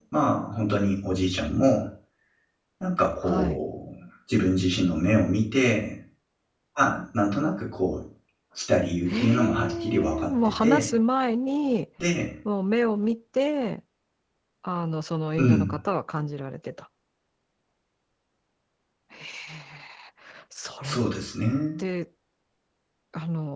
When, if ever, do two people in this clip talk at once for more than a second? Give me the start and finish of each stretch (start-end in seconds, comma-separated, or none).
9.1-10.9